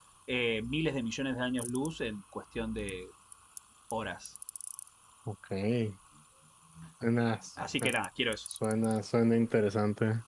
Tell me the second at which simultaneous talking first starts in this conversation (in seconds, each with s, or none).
none